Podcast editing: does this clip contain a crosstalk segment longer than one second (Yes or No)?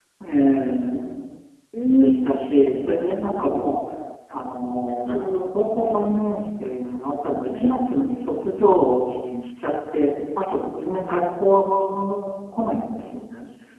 Yes